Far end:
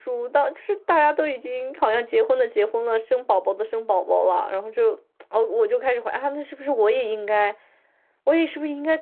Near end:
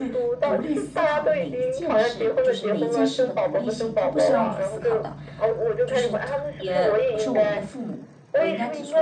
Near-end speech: present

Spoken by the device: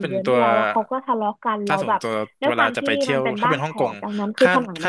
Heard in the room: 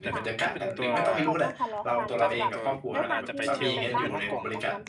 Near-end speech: present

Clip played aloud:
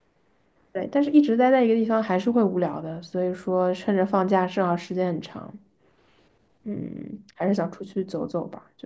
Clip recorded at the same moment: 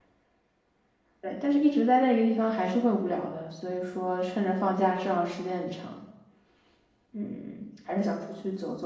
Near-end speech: none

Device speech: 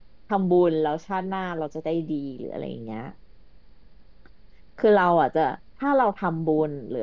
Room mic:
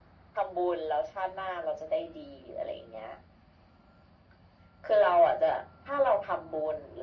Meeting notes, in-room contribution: none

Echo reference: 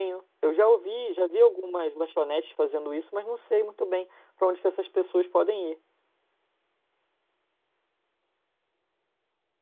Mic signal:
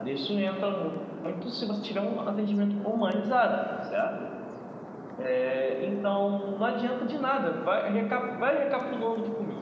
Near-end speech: present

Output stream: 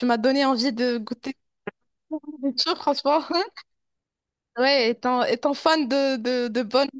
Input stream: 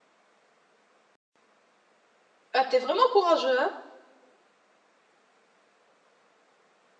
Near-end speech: present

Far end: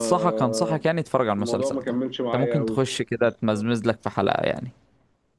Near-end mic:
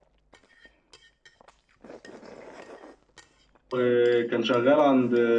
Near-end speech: present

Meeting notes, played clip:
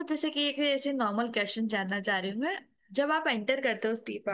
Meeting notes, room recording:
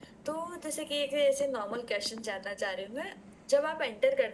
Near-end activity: none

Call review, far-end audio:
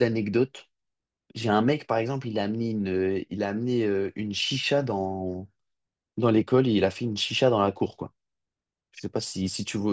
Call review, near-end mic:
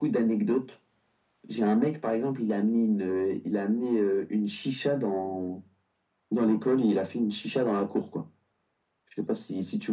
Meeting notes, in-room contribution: none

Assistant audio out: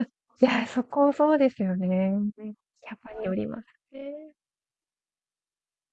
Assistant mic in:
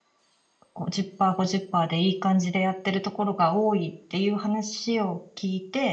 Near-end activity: present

